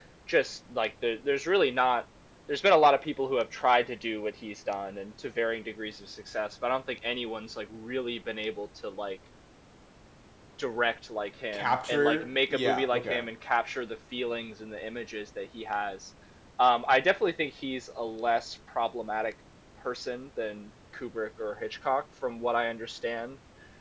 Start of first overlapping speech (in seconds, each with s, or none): 11.5 s